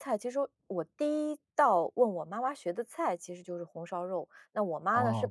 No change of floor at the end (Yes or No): Yes